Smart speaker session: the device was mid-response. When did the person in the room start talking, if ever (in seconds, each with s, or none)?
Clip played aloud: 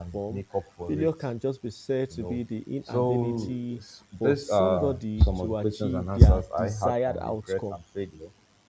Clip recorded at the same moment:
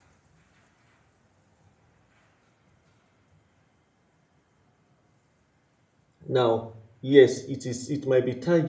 6.3 s